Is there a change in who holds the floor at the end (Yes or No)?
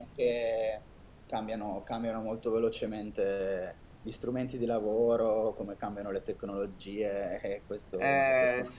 Yes